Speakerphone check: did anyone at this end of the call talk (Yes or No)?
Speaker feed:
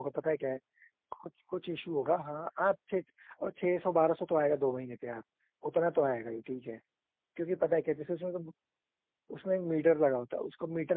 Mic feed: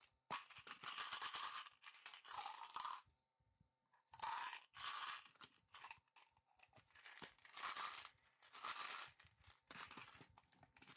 No